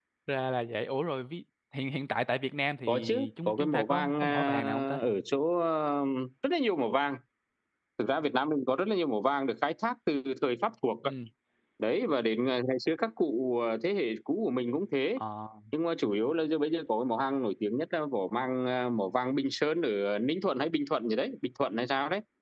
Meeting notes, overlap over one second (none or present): present